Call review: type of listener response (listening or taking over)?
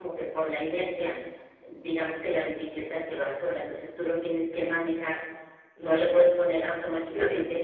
listening